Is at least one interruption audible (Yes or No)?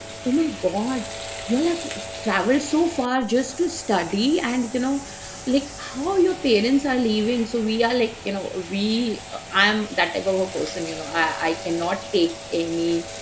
No